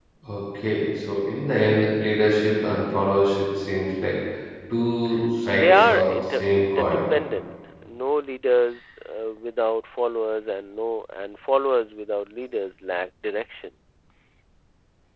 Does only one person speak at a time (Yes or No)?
No